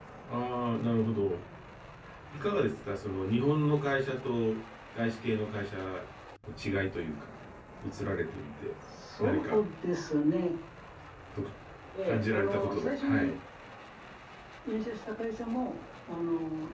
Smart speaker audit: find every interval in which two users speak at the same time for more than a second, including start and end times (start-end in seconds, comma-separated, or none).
12.0-13.3